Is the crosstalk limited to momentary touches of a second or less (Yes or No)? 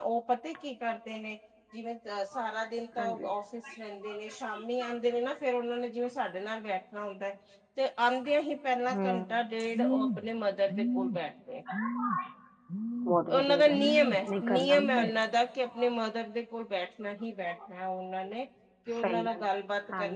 No